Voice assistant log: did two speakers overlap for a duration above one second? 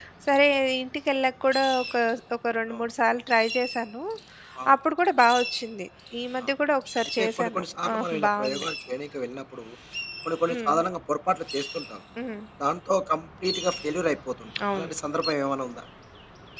Yes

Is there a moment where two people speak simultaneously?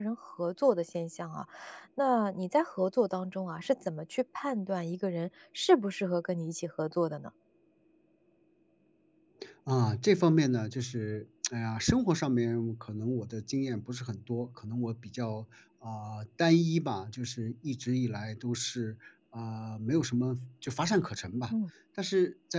No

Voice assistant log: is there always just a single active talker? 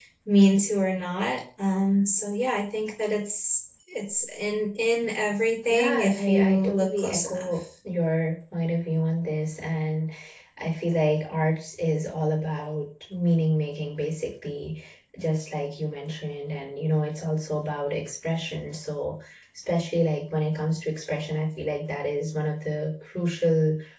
No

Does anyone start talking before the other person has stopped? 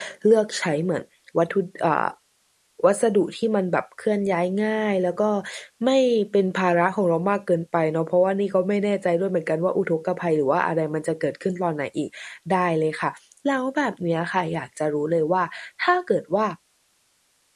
No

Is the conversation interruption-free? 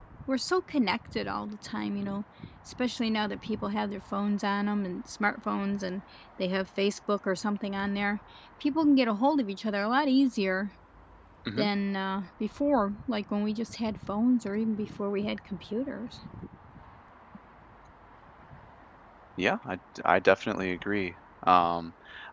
Yes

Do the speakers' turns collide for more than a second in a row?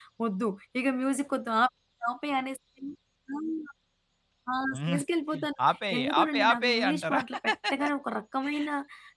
Yes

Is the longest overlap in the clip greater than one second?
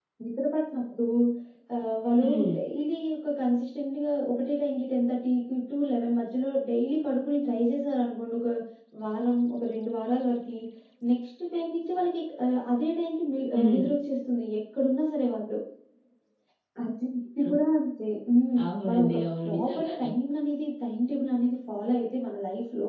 Yes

